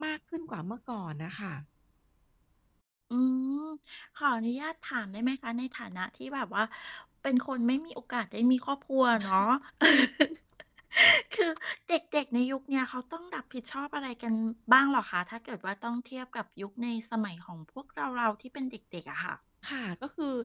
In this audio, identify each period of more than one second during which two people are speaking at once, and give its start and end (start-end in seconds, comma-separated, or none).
none